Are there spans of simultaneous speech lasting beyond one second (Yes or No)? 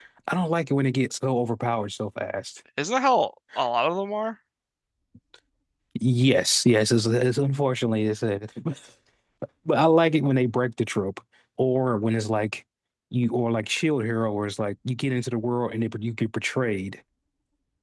No